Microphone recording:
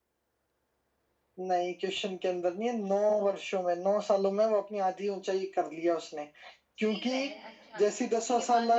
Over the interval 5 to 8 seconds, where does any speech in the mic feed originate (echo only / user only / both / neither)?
both